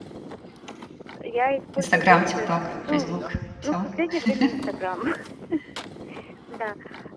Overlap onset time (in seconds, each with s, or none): 1.8 s